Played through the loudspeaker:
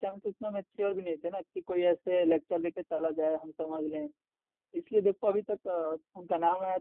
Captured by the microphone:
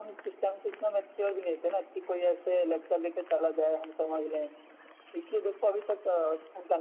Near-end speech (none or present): none